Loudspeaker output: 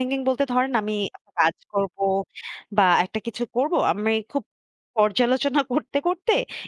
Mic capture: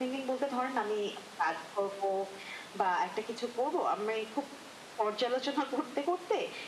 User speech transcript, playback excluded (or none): none